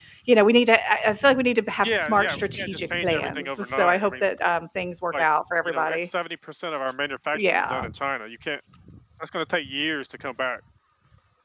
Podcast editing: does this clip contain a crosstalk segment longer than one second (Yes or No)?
Yes